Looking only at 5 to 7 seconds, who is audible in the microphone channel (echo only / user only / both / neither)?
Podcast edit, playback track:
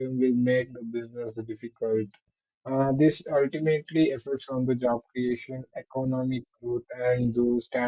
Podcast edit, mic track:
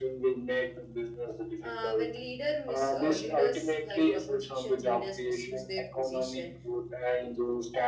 both